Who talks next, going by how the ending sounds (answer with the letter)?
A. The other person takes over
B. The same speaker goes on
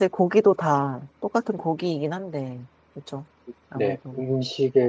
A